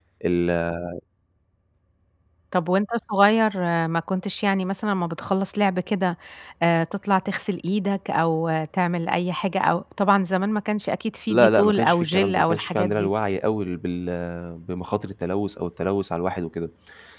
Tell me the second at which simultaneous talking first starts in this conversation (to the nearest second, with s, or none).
11 s